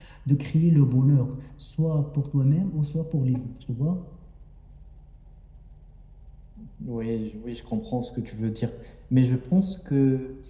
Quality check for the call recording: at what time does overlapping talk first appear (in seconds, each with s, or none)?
none